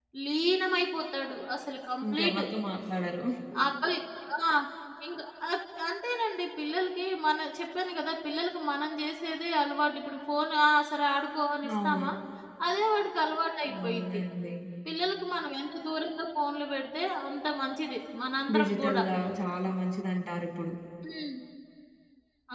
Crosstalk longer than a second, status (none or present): none